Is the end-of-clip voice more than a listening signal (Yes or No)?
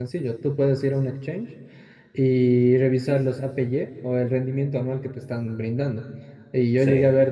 No